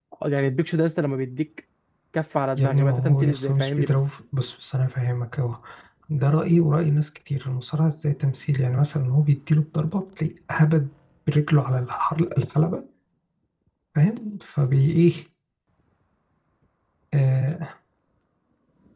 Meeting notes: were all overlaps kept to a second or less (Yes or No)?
No